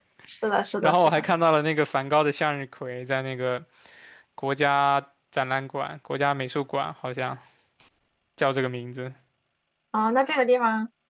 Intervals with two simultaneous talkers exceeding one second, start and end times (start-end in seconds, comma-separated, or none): none